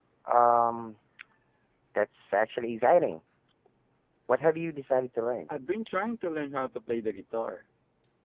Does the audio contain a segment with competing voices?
No

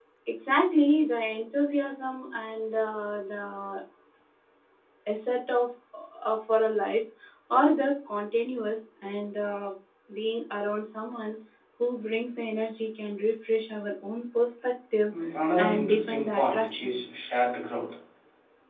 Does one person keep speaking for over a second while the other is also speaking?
Yes, from 15.6 s

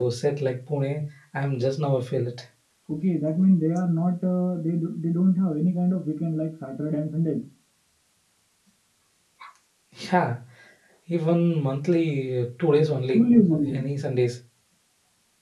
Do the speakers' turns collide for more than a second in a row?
No

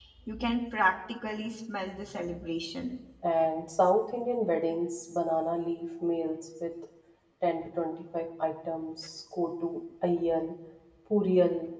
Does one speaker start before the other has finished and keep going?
No

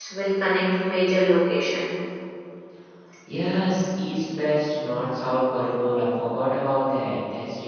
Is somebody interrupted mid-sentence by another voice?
No

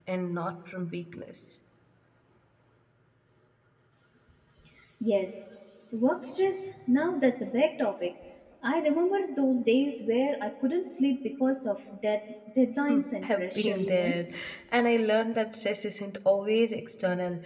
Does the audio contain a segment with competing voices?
Yes, from 12.9 s

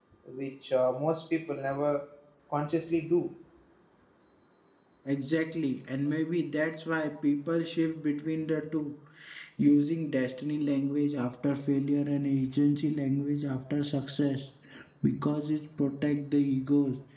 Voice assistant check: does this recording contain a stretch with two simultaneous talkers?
No

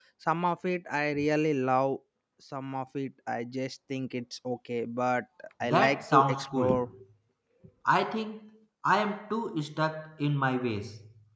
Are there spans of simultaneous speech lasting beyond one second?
Yes, from 5.6 s

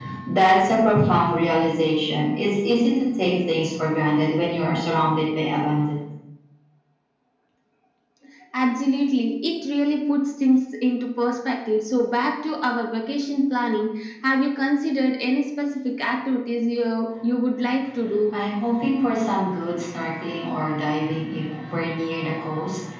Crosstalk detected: No

